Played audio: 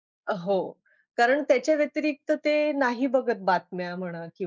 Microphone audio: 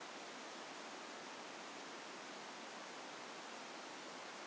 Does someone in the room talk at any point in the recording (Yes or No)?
No